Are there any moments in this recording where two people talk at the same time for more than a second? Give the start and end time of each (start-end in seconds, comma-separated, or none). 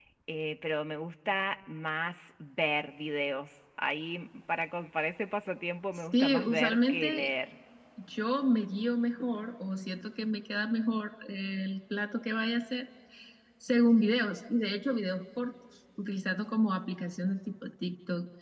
5.9-7.3